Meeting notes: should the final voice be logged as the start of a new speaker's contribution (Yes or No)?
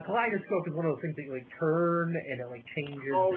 Yes